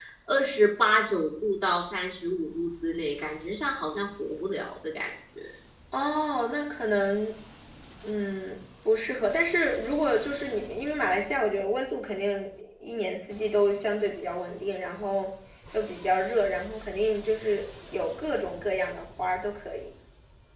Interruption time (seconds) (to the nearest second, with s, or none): none